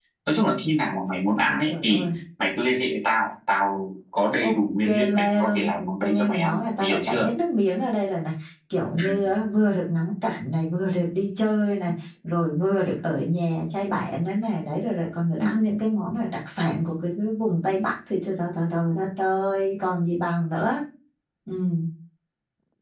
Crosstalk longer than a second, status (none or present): present